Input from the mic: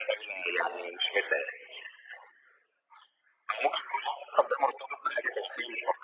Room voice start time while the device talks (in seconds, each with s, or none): none